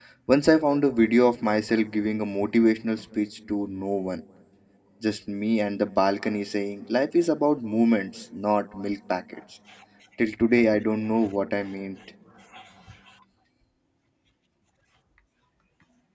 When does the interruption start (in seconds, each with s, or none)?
none